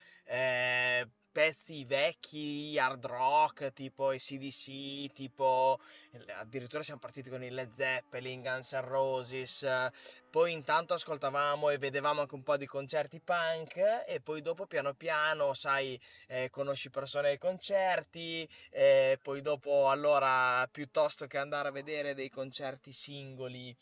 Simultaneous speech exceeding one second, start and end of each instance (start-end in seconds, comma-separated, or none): none